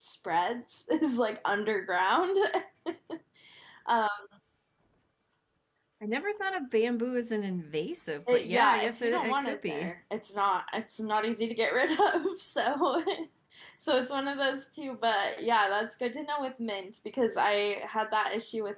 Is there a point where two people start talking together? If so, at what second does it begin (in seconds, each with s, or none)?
8.3 s